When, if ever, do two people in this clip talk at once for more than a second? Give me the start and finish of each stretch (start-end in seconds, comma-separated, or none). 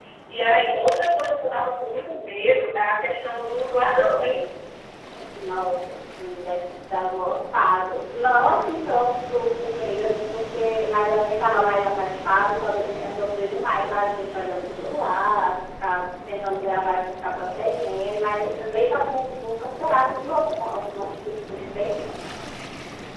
none